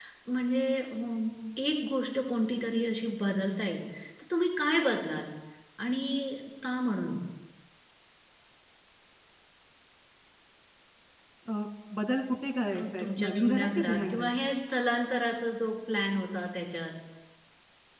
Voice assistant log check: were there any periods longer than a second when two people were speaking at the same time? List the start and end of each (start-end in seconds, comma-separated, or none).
12.7-14.3